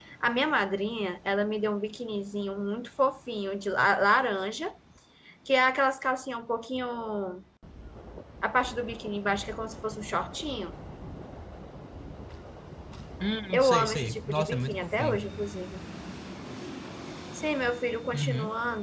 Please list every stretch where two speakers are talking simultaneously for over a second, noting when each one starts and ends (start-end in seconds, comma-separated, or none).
13.5-15.2